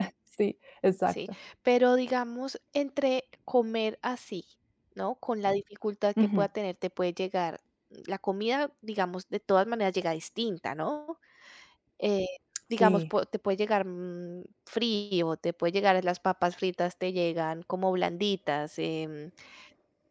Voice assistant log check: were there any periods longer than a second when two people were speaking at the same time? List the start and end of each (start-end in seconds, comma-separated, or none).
none